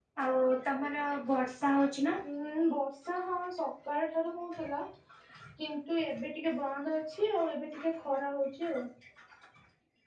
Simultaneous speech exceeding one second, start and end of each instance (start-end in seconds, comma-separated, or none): none